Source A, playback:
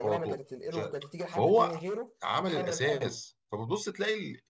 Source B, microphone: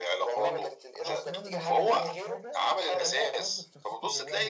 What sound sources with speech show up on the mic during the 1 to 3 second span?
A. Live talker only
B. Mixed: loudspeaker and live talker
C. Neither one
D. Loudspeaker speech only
B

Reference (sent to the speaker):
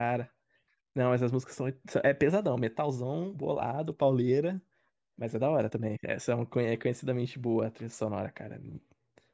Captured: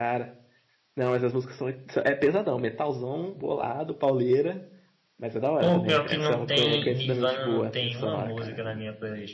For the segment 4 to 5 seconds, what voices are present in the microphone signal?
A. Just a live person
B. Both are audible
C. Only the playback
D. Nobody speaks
C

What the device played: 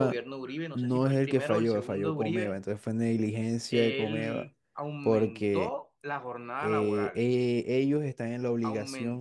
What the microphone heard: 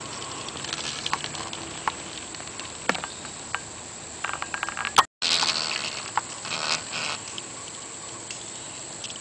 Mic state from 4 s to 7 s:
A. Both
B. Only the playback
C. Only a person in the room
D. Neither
D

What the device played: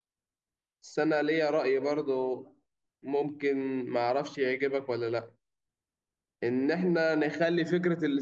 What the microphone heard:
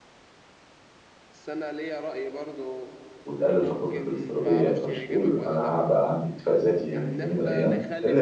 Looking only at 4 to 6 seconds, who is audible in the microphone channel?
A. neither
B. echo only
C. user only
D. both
D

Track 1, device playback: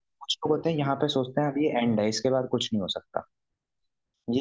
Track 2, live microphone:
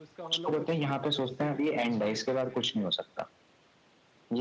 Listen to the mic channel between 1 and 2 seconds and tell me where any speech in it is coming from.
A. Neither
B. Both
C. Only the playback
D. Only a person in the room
B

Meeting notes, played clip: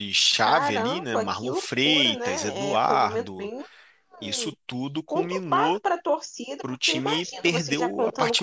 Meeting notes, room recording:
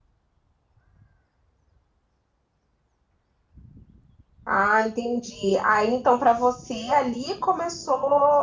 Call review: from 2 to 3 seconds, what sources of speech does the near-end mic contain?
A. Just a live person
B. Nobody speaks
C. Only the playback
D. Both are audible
B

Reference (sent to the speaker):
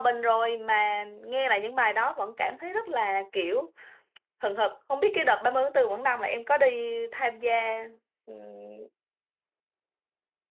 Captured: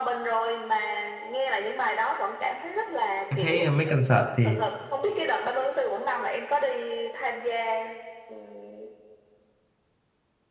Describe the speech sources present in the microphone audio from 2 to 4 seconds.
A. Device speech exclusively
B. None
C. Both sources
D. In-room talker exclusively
C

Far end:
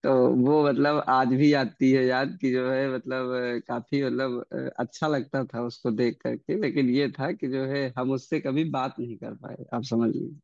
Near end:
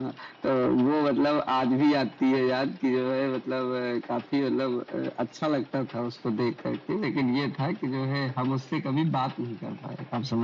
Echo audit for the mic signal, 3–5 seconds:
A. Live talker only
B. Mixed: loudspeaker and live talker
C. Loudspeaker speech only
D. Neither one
C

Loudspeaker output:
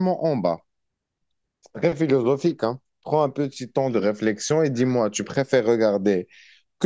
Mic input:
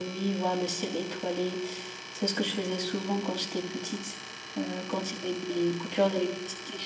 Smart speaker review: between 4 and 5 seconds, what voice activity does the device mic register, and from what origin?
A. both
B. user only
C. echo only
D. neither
B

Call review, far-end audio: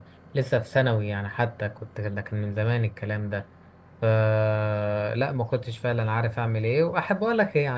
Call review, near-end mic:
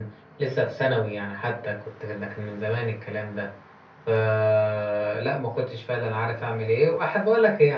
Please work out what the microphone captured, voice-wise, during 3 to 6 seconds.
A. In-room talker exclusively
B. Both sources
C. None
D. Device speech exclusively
D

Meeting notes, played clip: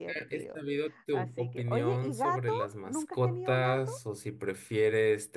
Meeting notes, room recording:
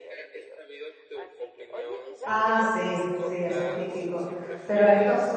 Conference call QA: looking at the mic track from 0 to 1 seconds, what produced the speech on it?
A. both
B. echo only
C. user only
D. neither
B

